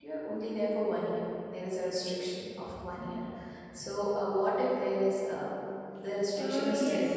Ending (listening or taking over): taking over